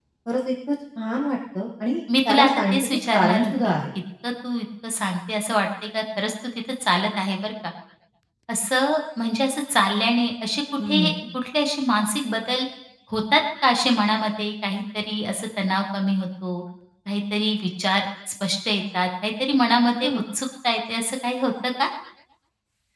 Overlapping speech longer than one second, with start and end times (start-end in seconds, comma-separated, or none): 2.3-3.8